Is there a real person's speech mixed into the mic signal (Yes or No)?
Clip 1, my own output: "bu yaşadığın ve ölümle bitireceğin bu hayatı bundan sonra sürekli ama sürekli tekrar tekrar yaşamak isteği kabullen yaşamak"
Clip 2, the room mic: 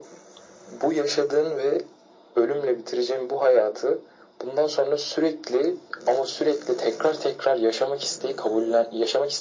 No